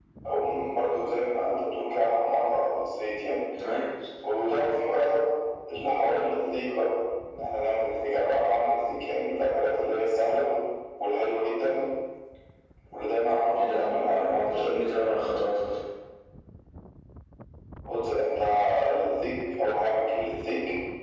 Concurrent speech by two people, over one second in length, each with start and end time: 13.6-14.9

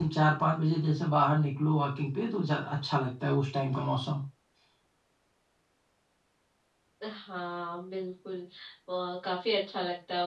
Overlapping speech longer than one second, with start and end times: none

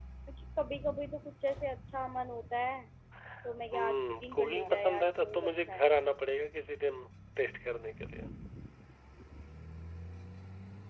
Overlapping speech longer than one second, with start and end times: 3.7-5.9

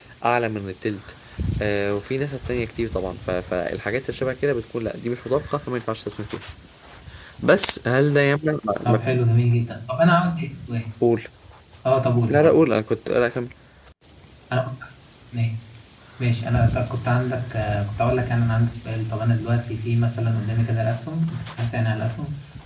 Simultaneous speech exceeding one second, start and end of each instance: none

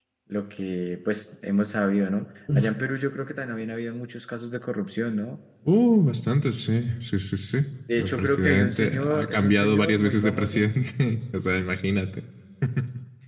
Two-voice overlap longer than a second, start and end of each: 8.0-10.6

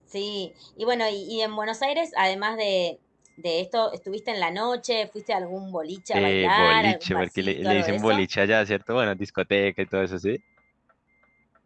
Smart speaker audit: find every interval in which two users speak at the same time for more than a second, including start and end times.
6.1-8.2

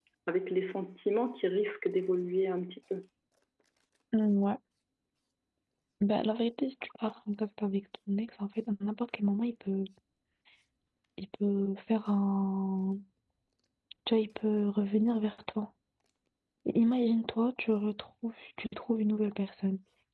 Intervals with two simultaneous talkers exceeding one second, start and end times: none

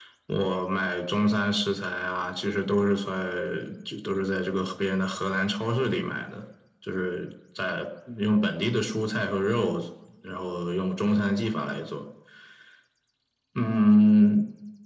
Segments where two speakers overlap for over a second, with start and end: none

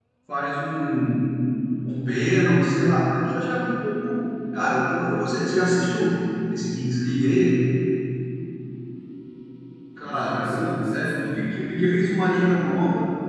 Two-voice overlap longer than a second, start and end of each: 10.0-11.6

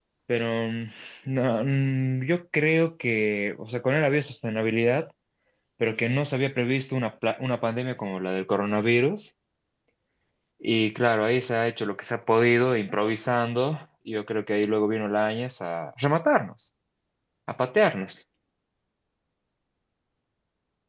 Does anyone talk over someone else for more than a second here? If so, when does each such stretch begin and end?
none

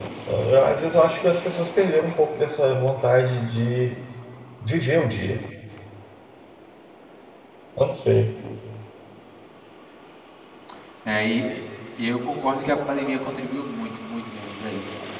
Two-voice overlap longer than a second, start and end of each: none

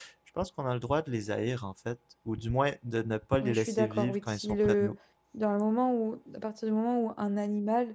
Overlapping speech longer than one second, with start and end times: 3.4-5.0

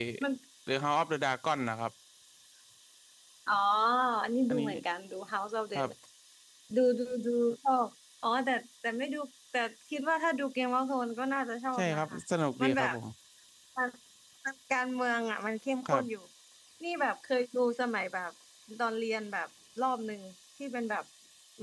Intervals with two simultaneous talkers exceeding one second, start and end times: none

